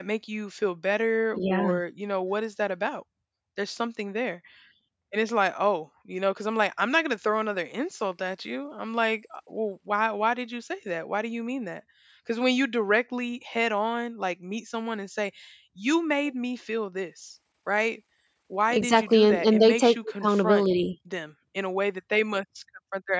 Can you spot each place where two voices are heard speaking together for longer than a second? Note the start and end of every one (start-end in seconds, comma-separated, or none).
18.7-20.6